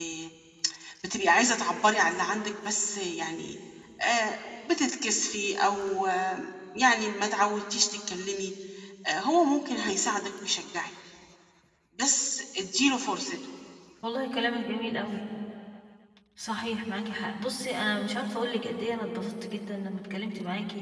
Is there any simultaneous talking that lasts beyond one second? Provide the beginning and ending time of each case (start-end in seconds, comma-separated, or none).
none